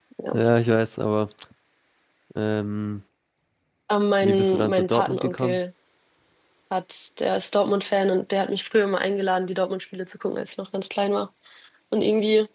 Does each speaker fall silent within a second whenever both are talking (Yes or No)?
No